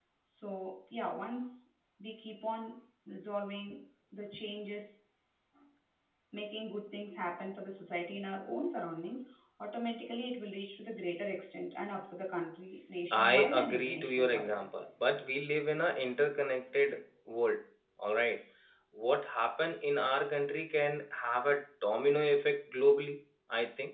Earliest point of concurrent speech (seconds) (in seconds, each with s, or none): 13.1 s